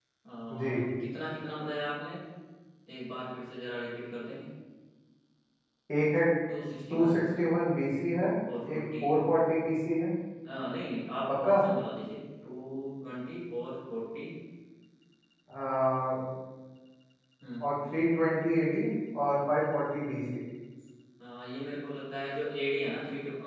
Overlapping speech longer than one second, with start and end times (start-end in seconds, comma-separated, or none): none